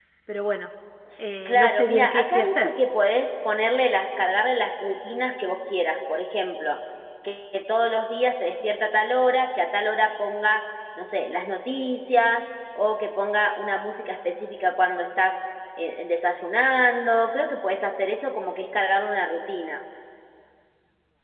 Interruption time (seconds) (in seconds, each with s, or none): 1.4 s